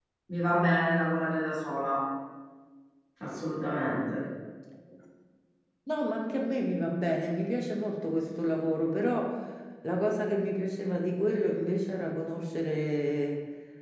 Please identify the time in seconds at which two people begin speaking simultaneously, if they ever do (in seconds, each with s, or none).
none